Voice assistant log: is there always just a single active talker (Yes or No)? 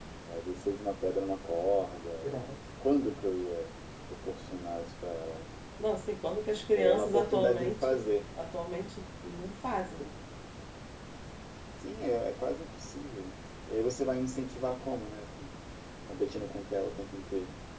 No